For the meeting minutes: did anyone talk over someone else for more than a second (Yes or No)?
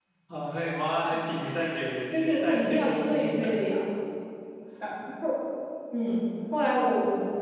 Yes